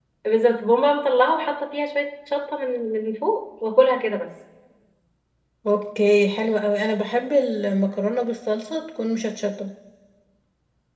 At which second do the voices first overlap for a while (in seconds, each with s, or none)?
none